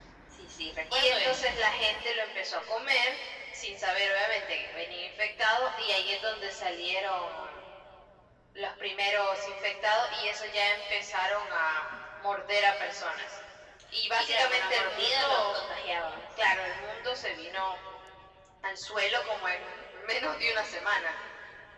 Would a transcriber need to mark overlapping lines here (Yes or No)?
Yes